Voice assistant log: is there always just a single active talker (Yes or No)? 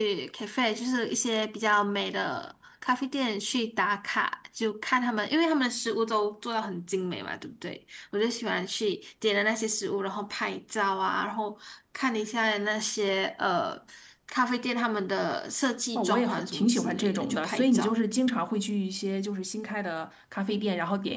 No